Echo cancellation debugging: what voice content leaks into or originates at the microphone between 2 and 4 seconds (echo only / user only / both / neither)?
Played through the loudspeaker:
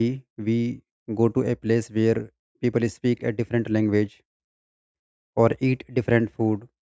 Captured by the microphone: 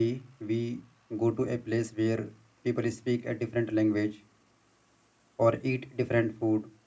echo only